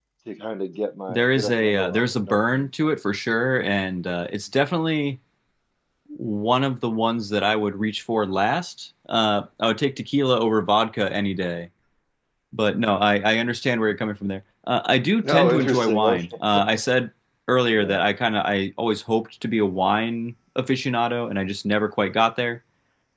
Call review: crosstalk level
present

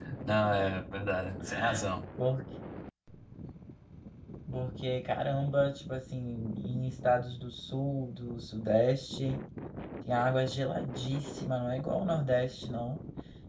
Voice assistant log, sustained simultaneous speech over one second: none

